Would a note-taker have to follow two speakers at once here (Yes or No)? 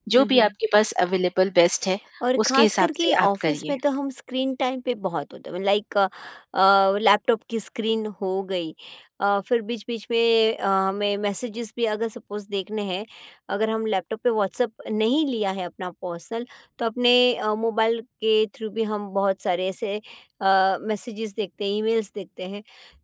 Yes